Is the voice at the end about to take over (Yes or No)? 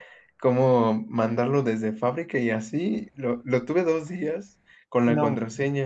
No